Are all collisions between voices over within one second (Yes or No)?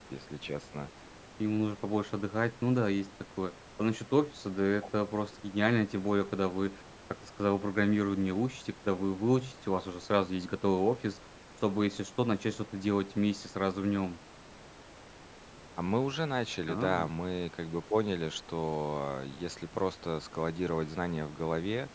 Yes